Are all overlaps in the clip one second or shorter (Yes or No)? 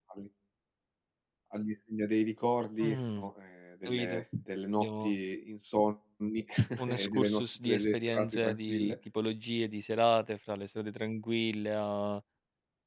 No